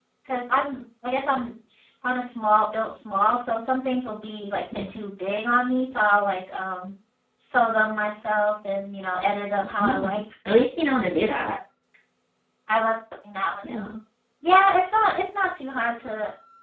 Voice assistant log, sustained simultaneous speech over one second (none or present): none